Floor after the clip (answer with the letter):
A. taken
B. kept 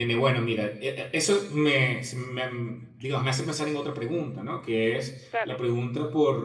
B